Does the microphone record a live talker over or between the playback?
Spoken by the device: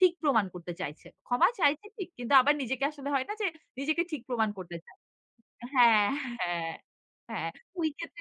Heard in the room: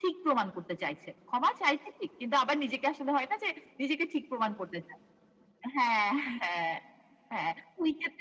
No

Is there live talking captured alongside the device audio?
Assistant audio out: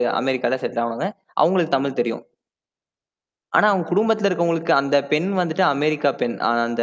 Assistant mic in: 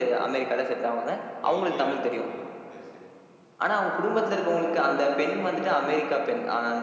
Yes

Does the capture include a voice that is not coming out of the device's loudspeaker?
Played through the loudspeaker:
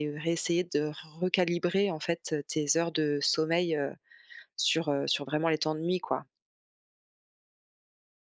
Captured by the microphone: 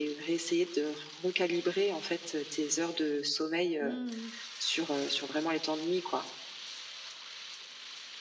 Yes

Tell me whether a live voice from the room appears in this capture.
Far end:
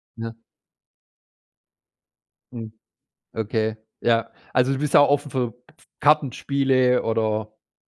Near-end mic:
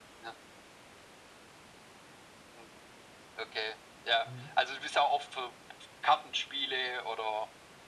Yes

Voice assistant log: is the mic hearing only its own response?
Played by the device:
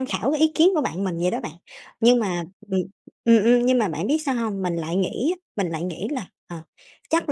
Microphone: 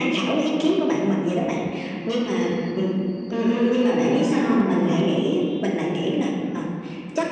Yes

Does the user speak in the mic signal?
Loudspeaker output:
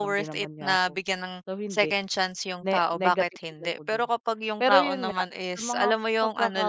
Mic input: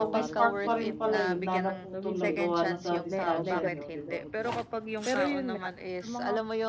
Yes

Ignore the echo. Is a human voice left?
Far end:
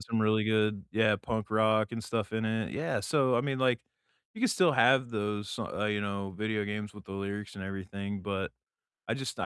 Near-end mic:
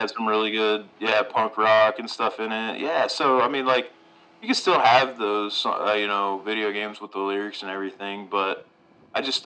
No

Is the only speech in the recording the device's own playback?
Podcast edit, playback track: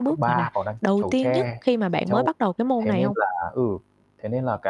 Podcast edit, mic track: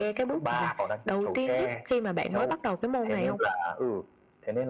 Yes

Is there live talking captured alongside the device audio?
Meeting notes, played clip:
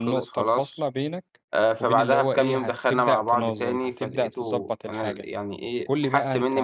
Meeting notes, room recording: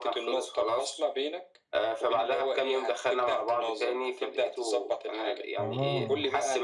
Yes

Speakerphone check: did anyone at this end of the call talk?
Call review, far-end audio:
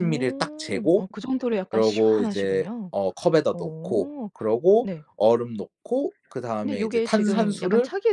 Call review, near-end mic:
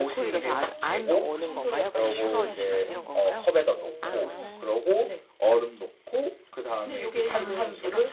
Yes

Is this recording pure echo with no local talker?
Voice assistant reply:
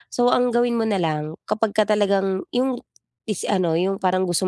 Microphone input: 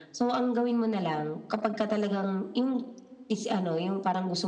Yes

